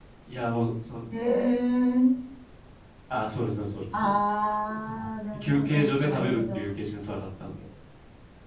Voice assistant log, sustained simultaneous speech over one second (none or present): present